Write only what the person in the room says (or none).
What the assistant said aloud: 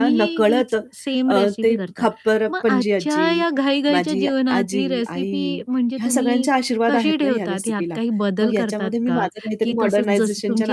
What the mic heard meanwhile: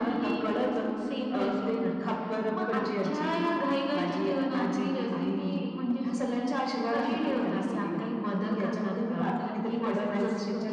none